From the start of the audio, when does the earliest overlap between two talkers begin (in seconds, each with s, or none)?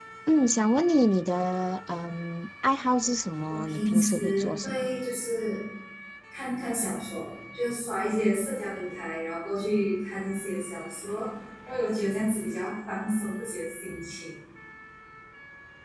3.5 s